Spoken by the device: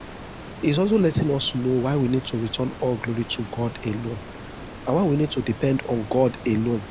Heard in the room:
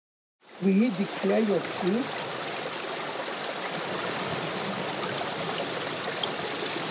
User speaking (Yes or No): Yes